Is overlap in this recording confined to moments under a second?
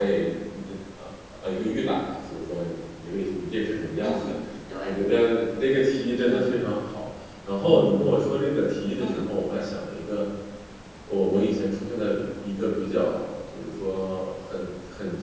Yes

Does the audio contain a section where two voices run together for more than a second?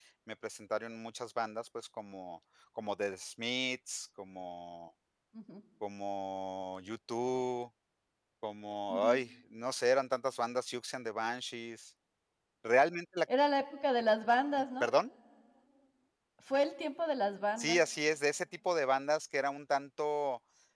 No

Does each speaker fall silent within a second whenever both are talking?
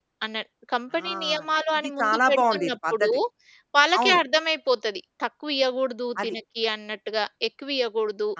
No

